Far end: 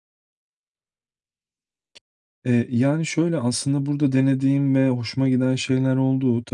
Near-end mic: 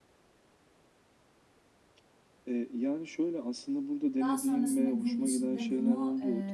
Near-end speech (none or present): present